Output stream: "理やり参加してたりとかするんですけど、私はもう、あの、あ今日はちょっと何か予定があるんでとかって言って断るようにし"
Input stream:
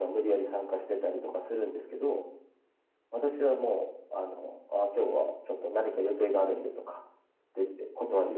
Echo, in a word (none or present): present